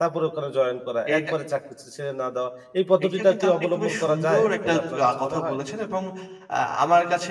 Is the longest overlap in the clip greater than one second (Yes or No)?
Yes